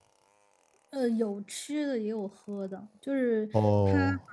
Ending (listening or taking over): listening